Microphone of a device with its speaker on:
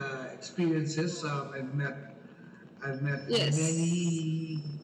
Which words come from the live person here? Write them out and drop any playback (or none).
Yes.